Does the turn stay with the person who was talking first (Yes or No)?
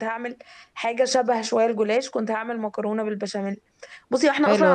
Yes